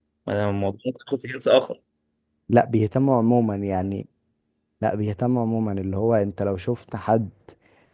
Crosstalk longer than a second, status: none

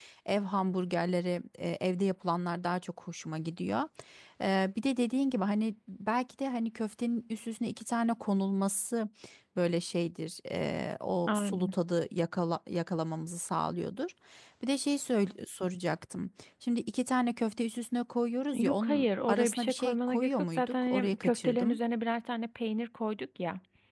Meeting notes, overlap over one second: present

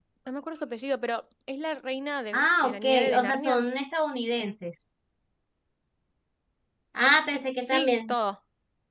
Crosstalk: present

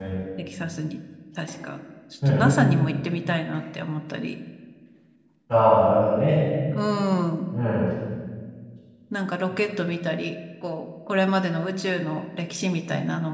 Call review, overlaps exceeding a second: none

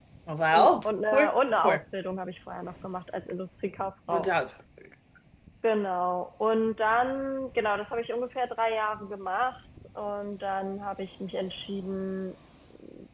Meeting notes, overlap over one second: present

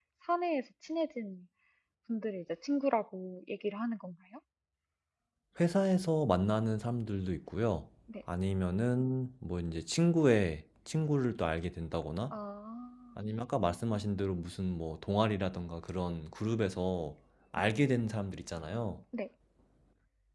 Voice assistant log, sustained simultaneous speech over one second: none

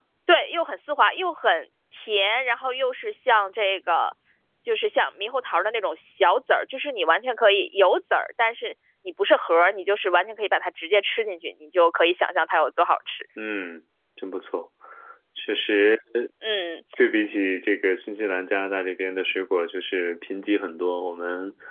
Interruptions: none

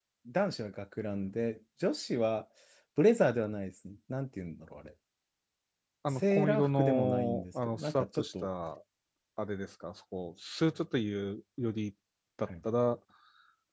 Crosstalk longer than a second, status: present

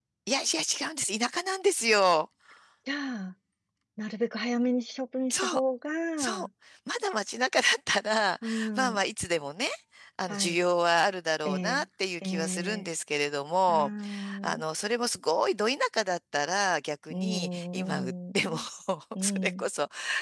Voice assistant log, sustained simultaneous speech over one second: present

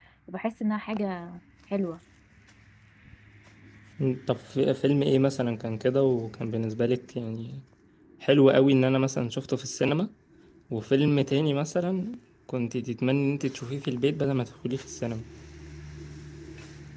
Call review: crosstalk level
none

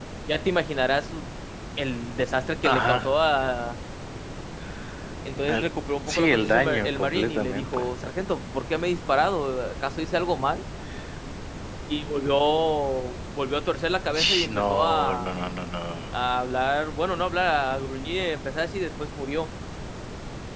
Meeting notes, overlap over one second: present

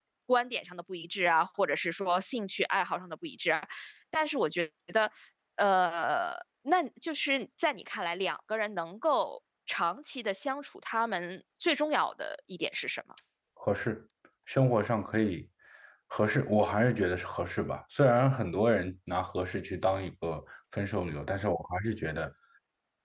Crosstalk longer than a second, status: none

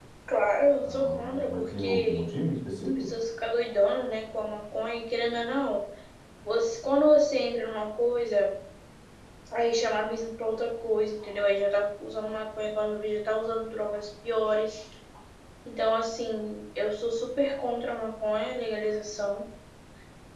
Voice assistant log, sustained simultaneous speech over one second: present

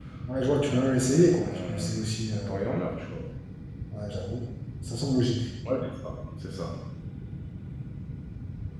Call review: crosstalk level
present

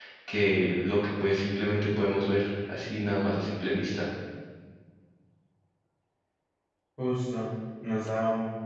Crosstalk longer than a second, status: none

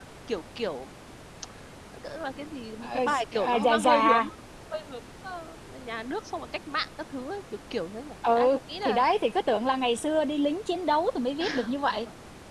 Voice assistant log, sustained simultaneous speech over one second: present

